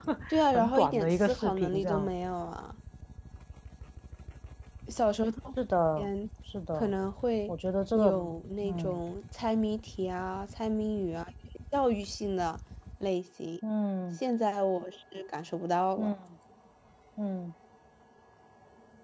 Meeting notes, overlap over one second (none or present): present